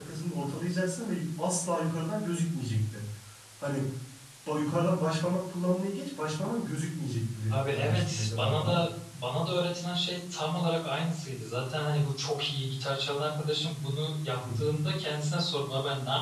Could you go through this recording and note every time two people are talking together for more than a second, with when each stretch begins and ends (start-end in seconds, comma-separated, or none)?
7.5-8.8